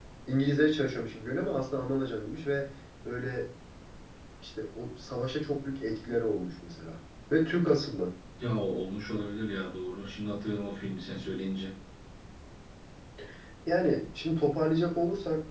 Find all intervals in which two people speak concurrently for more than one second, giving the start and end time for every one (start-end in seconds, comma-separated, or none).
none